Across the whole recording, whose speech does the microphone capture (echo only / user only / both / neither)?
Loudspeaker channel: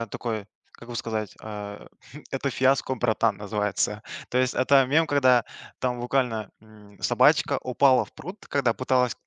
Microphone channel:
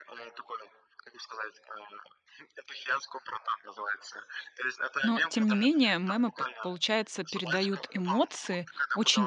both